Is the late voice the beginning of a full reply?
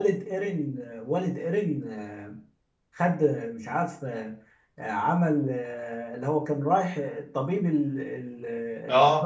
Yes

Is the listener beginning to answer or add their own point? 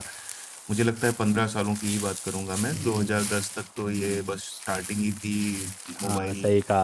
Yes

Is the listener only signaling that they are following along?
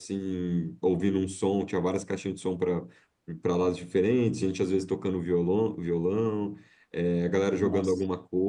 Yes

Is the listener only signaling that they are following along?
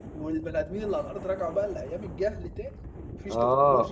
No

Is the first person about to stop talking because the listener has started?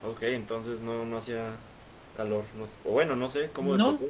Yes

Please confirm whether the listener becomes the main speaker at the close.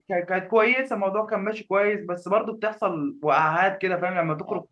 Yes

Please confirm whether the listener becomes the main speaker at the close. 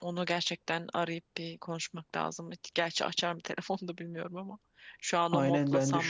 Yes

